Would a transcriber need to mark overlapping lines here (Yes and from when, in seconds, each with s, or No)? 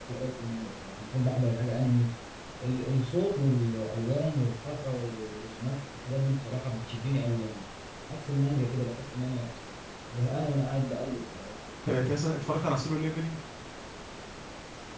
No